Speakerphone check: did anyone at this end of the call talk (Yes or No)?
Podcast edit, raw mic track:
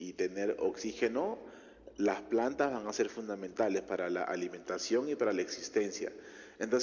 No